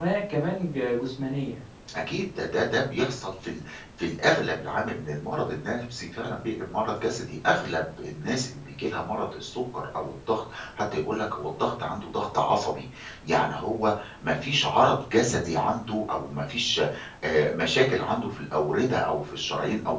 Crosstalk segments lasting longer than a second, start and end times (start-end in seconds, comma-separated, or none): none